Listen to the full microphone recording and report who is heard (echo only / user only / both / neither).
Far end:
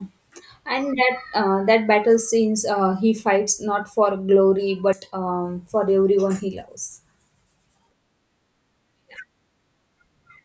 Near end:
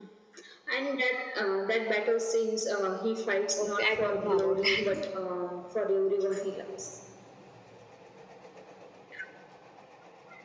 both